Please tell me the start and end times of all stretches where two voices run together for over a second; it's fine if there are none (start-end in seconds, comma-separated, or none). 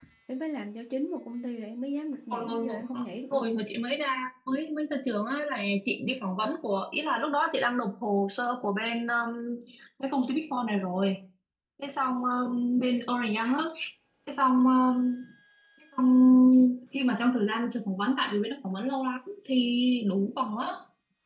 2.3-3.6